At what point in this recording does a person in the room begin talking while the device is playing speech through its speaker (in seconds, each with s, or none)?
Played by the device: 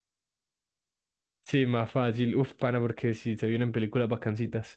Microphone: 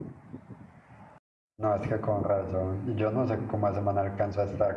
1.6 s